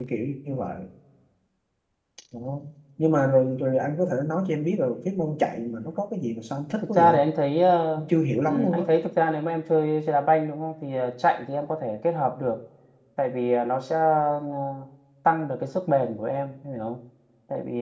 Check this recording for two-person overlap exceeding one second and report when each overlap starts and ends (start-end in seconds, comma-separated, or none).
none